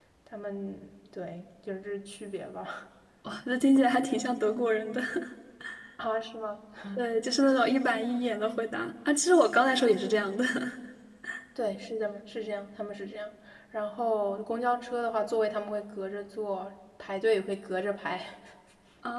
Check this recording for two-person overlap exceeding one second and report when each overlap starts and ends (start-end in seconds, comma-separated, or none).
none